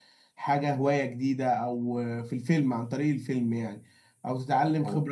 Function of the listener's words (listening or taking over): listening